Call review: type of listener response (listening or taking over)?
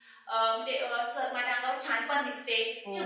taking over